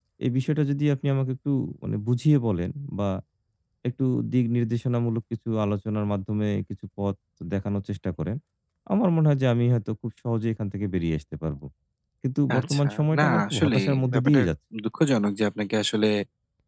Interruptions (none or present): present